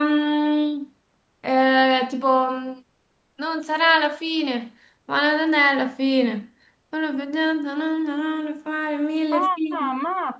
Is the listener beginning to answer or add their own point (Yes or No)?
Yes